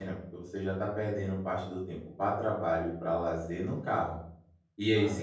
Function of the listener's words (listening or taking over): listening